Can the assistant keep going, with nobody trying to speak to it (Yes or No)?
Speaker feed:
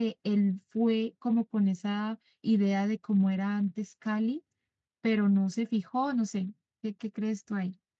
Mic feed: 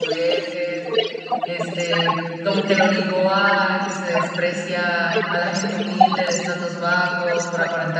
No